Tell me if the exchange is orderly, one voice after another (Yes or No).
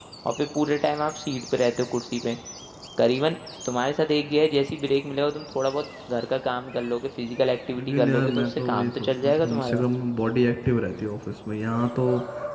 No